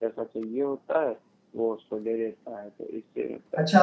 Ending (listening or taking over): taking over